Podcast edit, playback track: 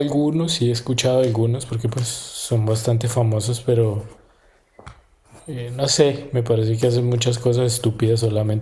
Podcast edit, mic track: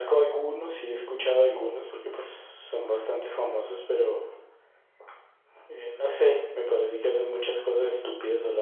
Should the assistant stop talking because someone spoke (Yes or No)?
No